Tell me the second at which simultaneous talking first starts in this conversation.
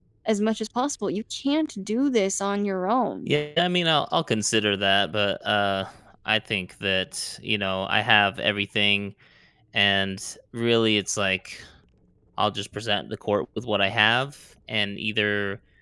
none

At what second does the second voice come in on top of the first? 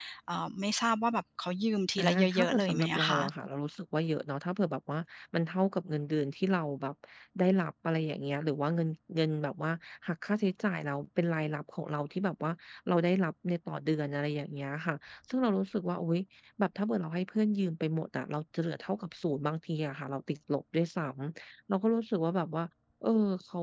2.0 s

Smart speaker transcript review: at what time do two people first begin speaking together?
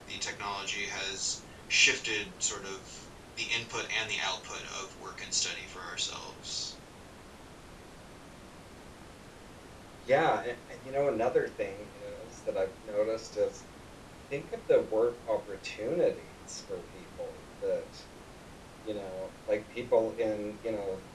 none

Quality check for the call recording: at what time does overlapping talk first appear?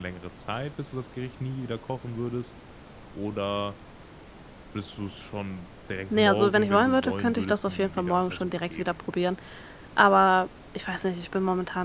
6.1 s

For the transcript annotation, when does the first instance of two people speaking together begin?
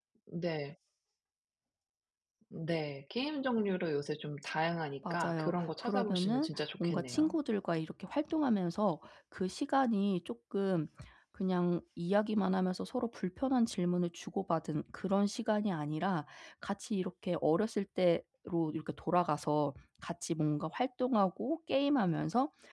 5.0 s

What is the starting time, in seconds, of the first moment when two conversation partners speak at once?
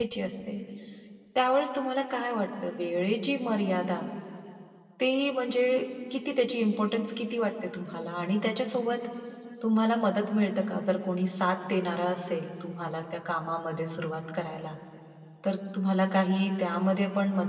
none

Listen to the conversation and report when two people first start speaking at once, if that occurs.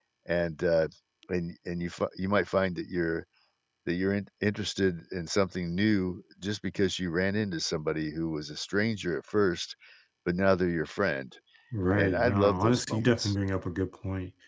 11.9 s

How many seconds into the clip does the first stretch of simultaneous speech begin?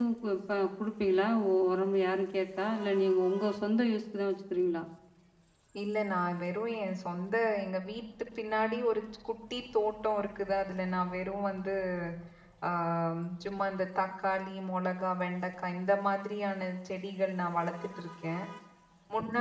none

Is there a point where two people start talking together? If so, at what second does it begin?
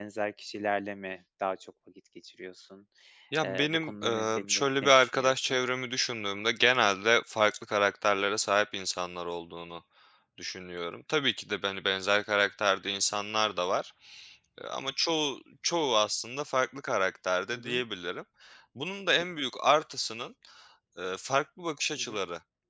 3.4 s

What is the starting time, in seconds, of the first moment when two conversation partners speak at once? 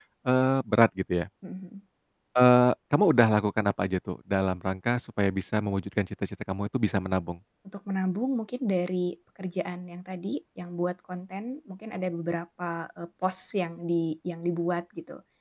none

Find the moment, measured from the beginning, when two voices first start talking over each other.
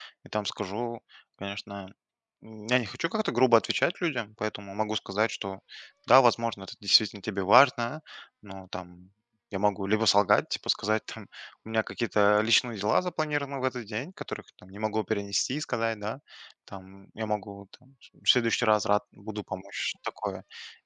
none

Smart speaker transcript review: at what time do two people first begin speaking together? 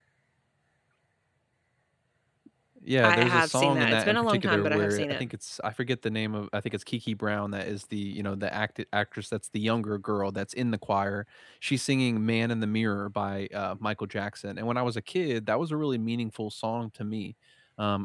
3.0 s

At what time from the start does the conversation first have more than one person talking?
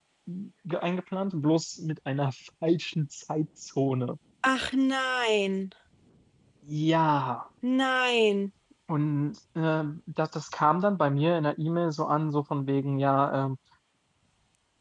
none

